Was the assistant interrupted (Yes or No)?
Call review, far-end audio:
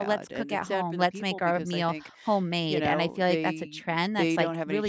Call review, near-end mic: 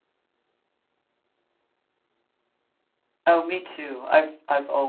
Yes